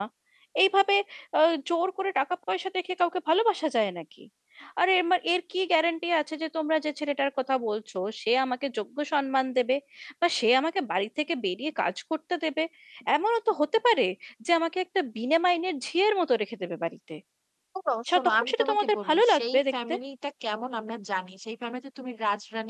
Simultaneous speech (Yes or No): Yes